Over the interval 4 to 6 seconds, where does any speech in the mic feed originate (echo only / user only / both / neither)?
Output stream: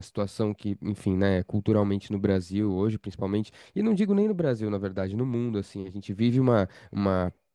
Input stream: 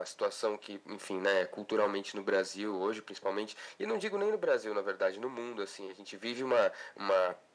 echo only